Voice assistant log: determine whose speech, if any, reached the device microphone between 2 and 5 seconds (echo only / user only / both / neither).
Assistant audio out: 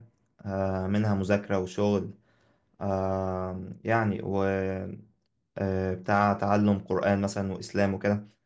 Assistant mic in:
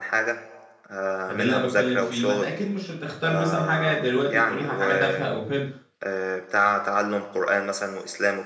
both